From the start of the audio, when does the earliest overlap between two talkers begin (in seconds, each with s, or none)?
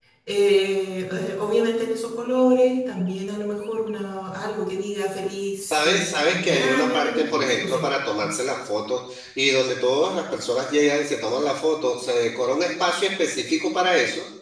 5.6 s